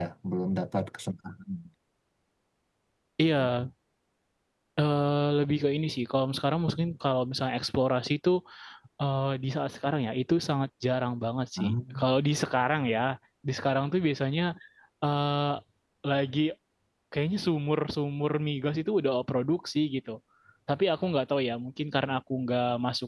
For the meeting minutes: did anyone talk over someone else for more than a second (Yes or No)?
No